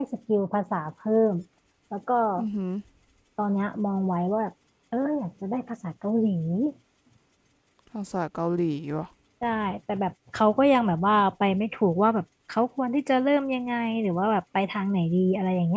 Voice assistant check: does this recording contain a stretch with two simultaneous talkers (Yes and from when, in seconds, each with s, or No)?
No